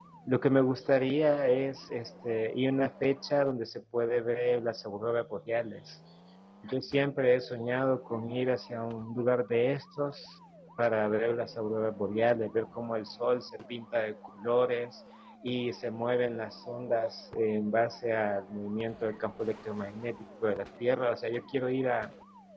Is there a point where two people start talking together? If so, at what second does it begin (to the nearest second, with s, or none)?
none